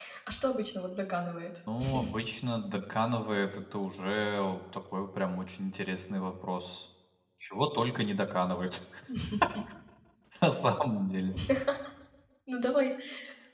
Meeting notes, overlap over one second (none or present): none